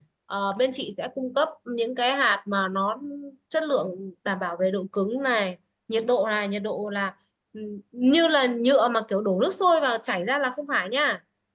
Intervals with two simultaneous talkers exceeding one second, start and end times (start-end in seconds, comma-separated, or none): none